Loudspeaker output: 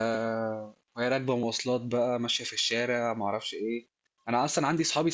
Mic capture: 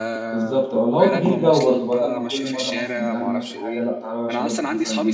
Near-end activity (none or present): present